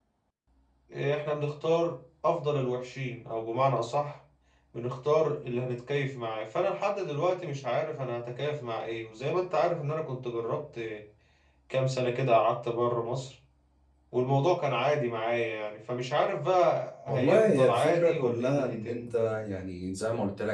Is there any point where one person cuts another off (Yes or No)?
Yes